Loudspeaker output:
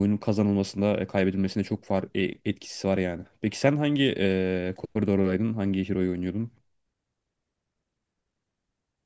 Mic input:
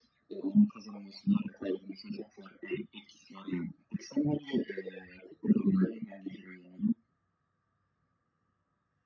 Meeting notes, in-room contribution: none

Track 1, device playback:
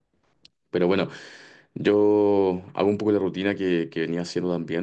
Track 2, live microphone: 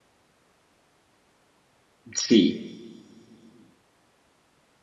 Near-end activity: present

